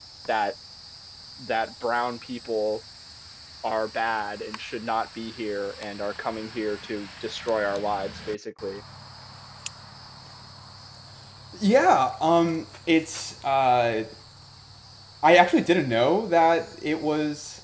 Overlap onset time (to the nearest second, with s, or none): none